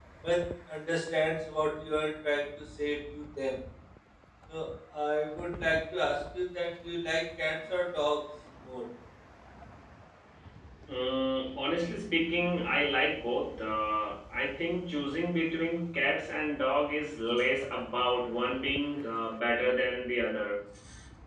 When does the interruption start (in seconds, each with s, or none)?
none